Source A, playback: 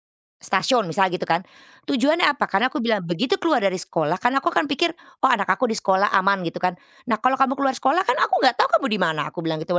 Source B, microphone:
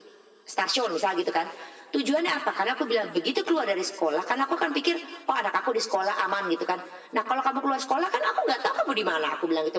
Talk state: echo only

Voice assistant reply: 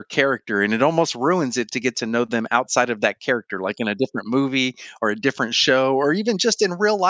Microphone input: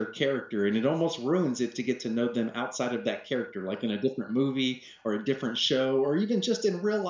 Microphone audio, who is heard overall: echo only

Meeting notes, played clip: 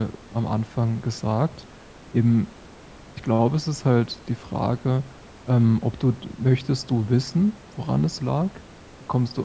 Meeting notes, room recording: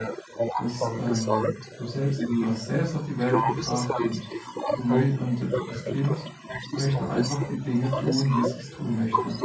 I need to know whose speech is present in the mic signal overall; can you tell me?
both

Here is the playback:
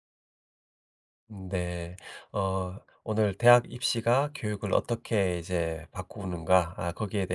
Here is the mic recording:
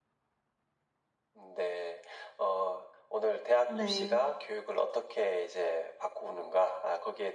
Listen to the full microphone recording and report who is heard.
both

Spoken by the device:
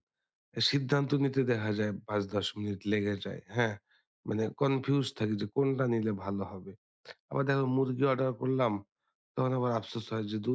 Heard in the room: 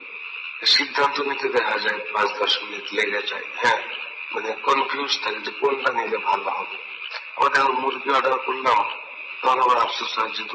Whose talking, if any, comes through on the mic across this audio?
echo only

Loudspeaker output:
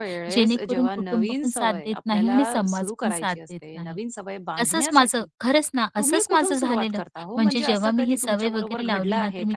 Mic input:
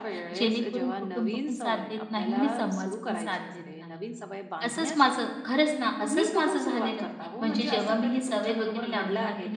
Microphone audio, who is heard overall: echo only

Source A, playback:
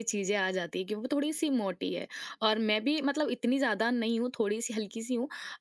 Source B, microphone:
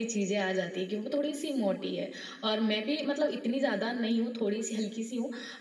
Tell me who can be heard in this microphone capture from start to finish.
echo only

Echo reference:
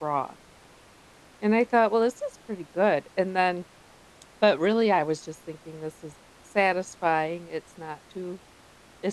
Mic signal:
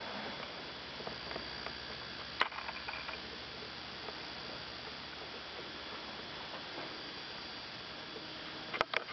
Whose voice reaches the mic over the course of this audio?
neither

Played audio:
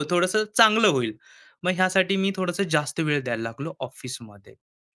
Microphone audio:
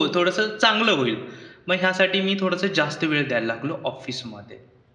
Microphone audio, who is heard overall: echo only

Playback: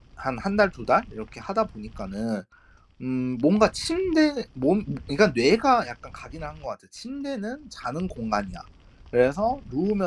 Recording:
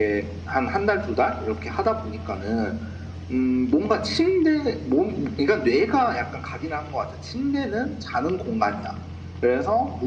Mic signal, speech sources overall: echo only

